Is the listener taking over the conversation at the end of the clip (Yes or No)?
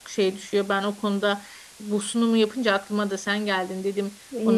Yes